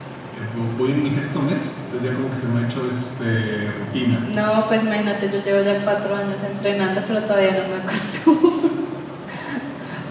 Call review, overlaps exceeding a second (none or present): none